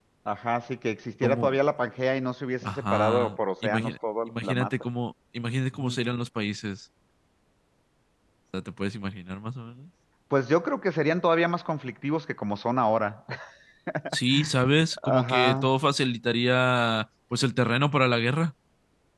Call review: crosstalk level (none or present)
present